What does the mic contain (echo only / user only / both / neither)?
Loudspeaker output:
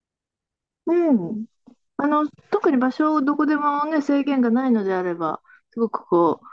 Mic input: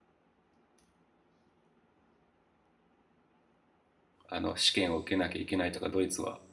user only